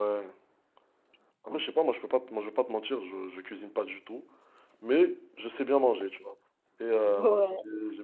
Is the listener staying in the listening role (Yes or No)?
Yes